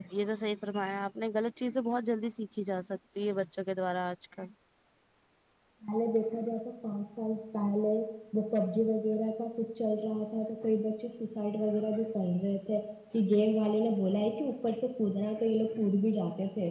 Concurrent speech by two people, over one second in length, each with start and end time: none

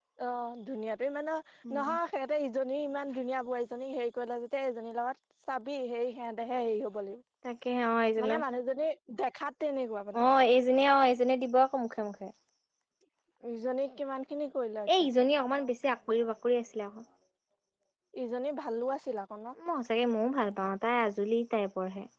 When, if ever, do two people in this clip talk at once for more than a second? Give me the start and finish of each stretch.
none

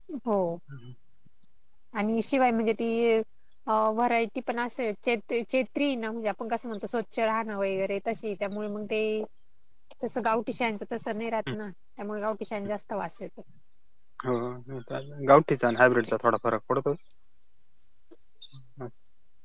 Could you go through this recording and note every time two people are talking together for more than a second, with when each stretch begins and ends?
none

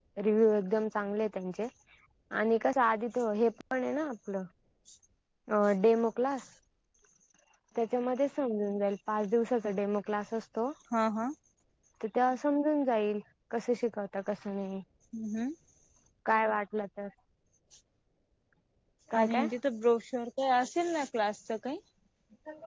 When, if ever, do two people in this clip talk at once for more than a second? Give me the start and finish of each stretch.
none

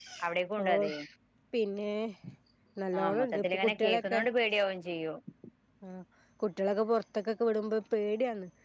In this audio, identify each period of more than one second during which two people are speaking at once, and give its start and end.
3.0-4.2

